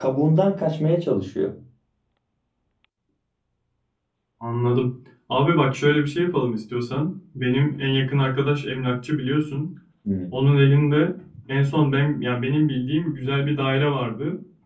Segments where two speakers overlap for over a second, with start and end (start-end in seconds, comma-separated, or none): none